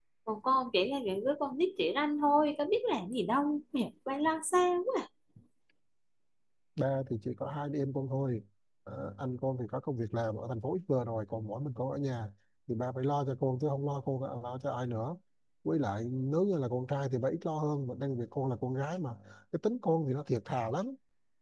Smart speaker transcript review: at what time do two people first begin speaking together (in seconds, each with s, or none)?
none